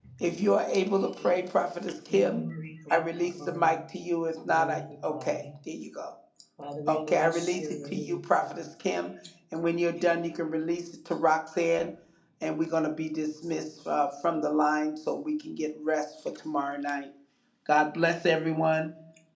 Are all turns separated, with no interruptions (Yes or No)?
No